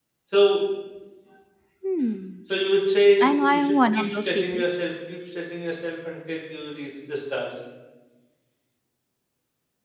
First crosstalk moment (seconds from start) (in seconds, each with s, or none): 3.2 s